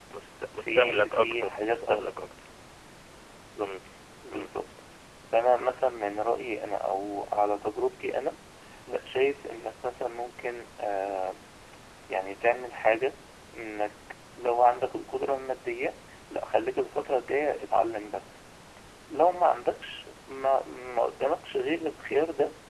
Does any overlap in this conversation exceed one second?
Yes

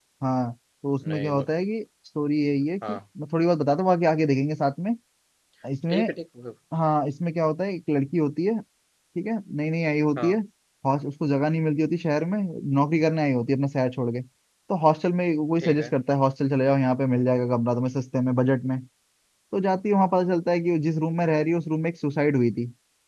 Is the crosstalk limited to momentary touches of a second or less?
Yes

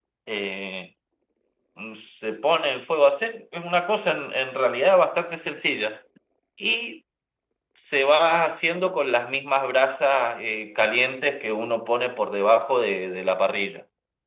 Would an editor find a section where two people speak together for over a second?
No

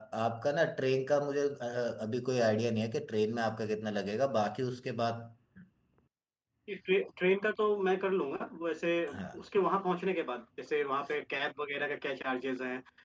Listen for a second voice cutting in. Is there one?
No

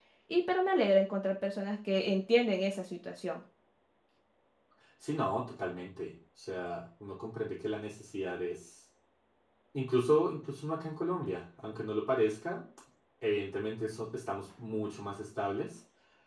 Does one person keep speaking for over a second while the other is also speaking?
No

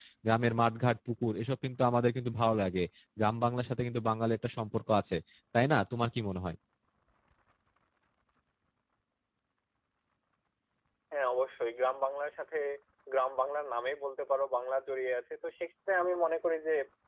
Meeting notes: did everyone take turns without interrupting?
Yes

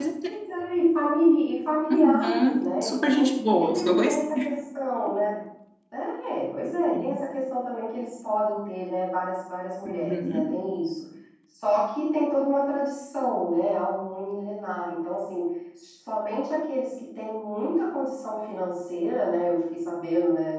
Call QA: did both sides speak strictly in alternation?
No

